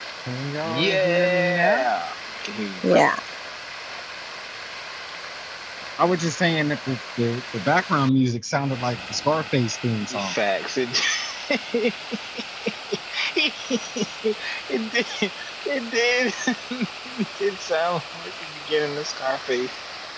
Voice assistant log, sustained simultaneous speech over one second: present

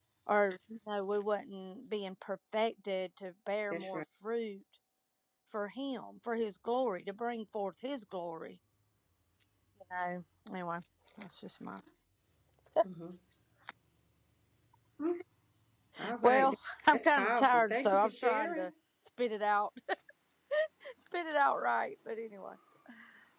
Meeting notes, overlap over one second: present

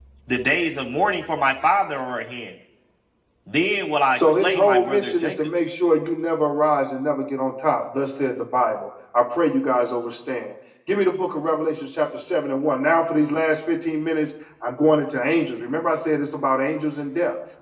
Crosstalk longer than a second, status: present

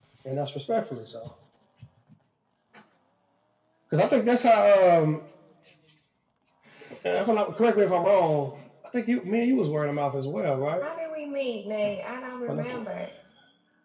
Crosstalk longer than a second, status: none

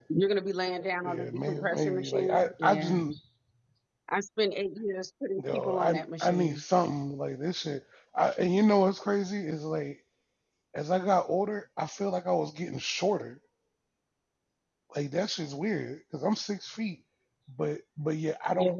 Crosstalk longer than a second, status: present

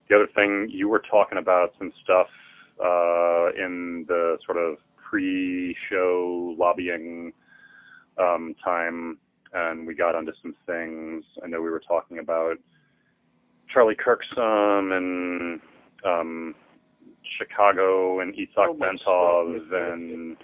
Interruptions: present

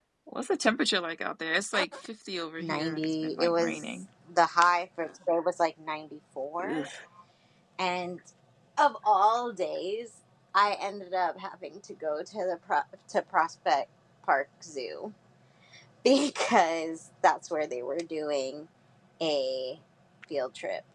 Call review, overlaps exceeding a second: present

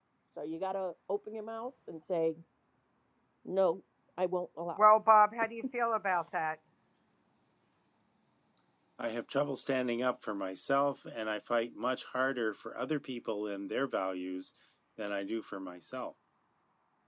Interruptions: none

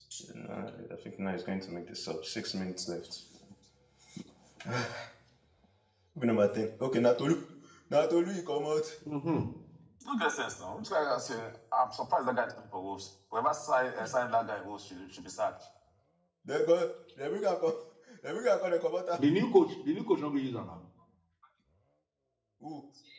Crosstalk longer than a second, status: none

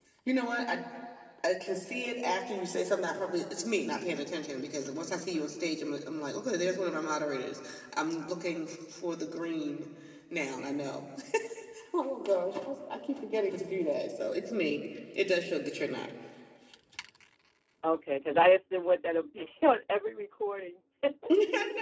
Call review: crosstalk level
none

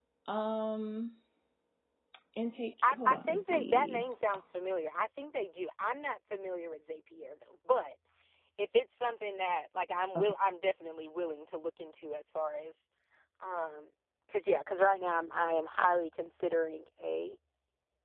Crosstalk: present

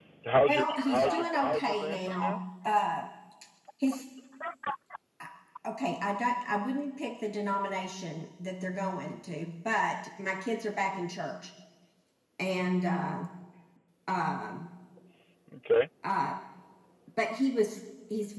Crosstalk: present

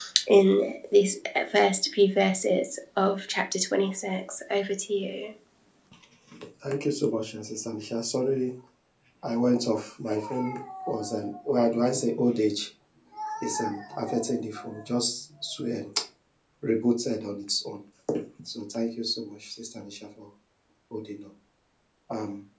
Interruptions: none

